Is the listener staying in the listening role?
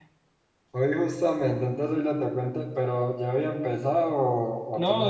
No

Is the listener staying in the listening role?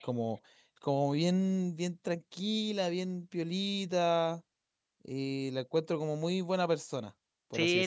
No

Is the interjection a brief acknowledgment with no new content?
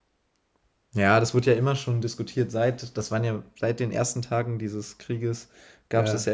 Yes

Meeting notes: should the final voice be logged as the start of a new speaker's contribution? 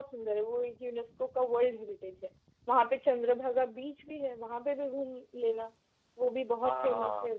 Yes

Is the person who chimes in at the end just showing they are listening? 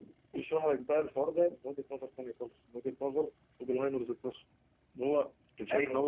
Yes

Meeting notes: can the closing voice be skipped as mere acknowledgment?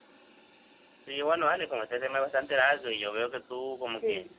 Yes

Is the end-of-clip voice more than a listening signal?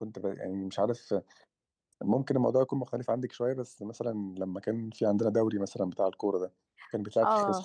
Yes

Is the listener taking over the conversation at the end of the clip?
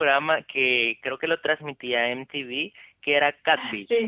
Yes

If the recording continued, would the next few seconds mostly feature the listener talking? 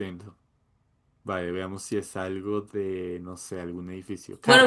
Yes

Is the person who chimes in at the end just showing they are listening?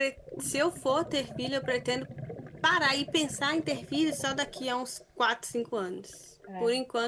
Yes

